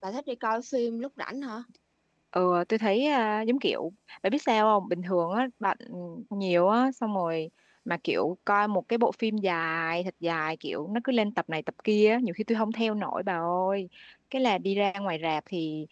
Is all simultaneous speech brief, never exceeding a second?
Yes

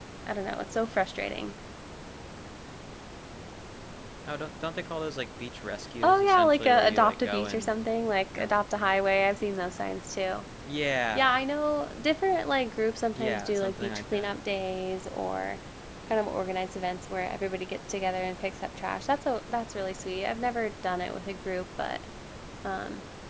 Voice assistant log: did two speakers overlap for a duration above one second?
Yes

